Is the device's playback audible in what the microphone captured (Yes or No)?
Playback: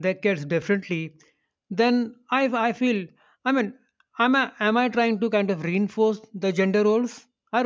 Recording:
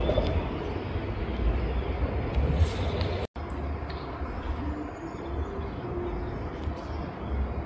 No